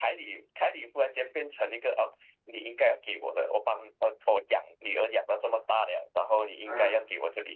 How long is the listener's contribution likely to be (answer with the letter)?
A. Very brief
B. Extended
A